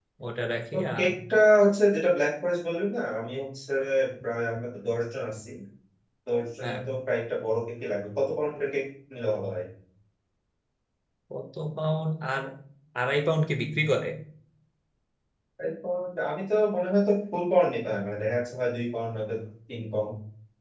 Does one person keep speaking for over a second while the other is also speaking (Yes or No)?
No